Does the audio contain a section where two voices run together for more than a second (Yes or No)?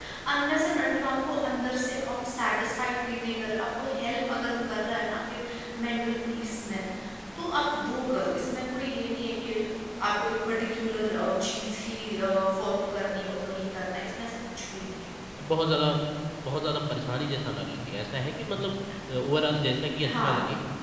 No